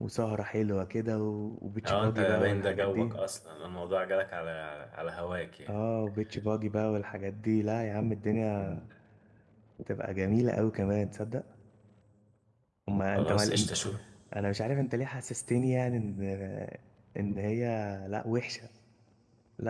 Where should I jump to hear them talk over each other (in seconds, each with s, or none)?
1.8 s